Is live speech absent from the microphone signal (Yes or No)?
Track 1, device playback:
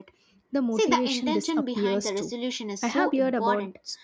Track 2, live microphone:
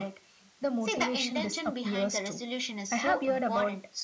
Yes